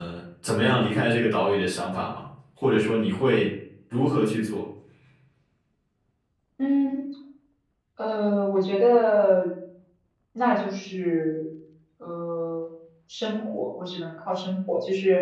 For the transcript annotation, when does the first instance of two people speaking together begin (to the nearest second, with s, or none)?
none